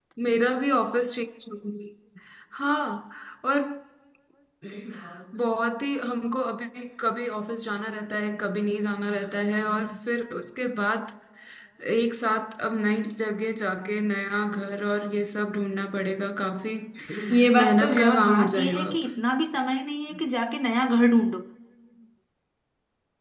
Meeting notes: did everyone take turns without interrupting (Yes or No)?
No